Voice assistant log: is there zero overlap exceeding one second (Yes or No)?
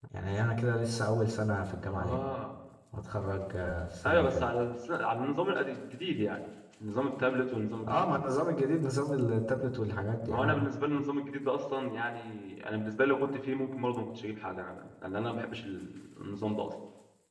Yes